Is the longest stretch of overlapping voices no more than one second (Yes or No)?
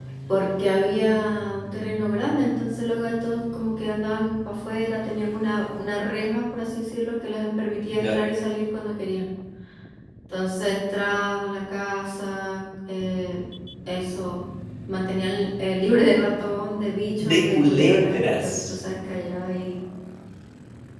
No